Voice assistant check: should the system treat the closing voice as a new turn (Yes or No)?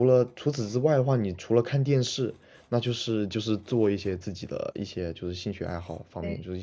No